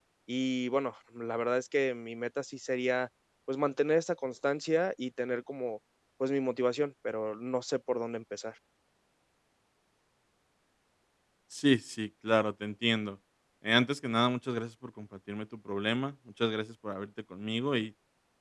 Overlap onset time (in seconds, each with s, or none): none